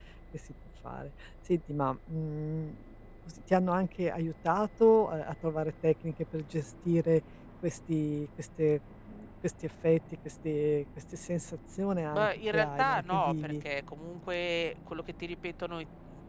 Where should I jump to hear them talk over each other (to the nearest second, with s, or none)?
12 s